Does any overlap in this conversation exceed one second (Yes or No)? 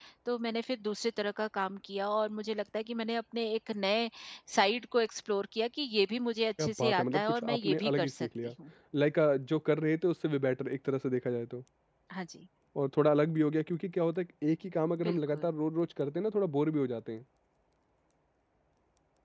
Yes